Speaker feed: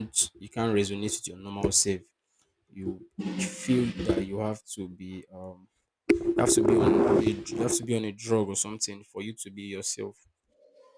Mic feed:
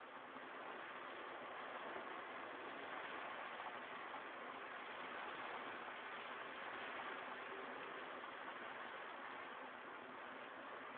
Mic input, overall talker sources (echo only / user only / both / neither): neither